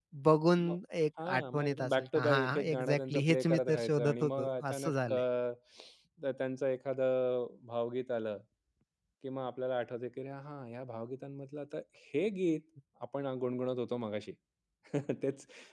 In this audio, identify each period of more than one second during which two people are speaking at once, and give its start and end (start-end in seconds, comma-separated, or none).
1.2-5.2